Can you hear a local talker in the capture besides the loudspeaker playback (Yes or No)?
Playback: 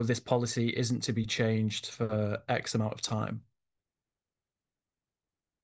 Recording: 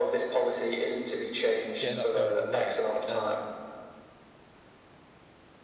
Yes